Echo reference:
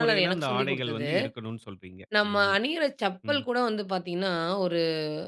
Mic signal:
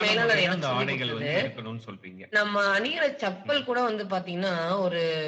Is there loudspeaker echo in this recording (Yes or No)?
Yes